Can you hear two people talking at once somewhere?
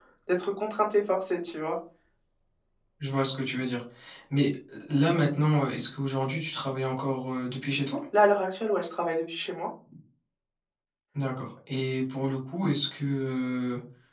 No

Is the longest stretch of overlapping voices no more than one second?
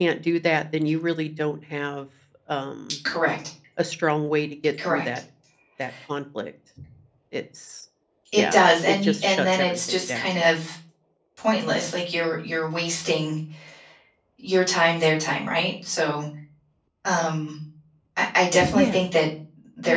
No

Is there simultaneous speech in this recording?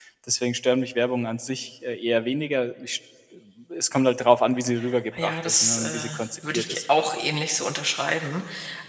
Yes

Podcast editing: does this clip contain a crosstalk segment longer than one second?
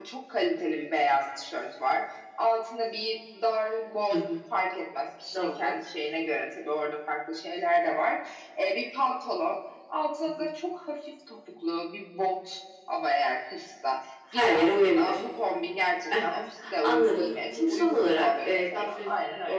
Yes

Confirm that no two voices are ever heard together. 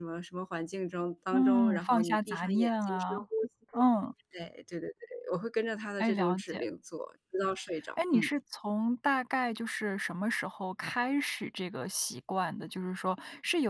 No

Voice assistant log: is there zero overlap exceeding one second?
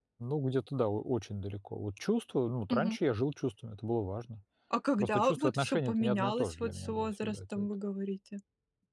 No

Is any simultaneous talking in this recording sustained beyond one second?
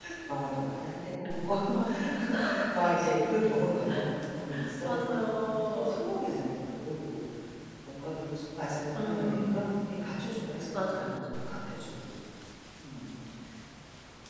Yes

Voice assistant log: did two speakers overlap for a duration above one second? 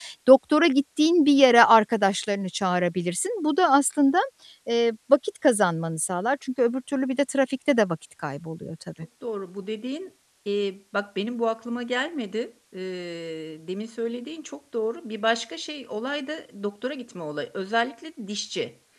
No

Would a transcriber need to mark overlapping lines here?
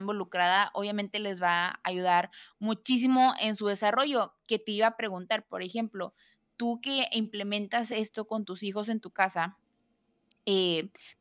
No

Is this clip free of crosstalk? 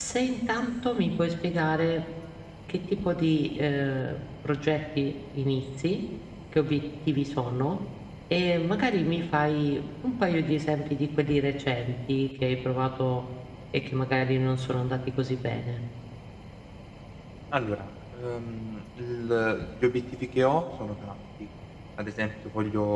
Yes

